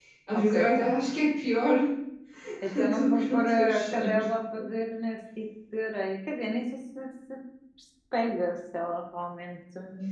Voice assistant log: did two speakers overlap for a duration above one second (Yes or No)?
Yes